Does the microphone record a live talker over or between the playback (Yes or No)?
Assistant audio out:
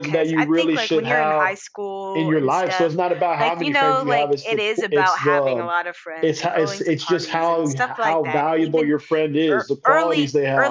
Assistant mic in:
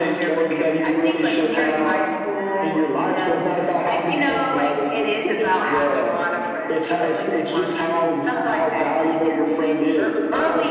Yes